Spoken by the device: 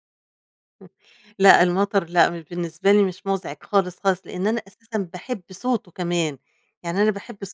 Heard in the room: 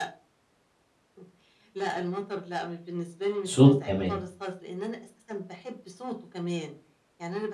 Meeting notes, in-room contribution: present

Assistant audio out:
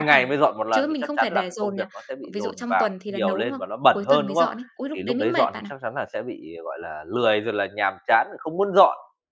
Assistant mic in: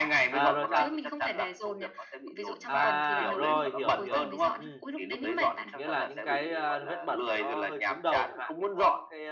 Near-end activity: present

